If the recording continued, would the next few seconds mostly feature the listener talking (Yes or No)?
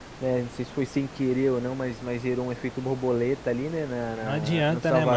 Yes